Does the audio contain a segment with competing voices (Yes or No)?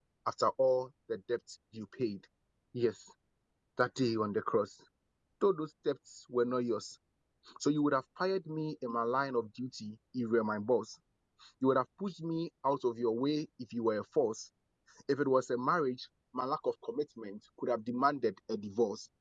No